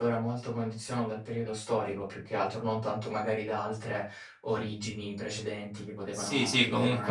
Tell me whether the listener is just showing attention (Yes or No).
No